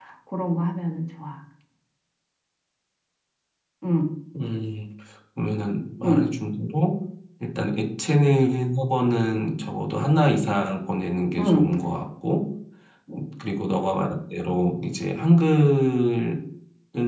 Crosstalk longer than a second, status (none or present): none